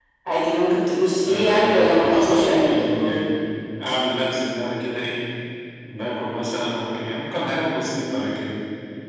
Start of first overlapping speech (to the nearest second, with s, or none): 1 s